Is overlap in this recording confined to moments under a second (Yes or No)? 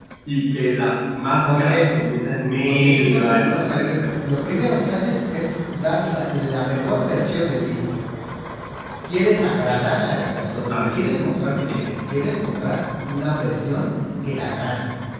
No